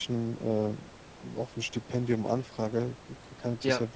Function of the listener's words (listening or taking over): listening